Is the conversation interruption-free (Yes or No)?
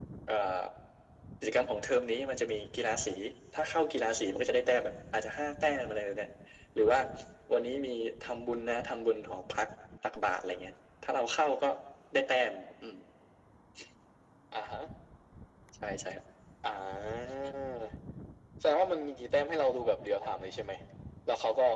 Yes